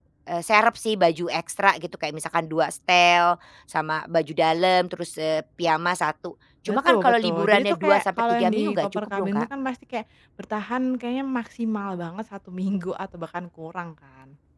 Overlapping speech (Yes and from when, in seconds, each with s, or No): Yes, from 6.7 s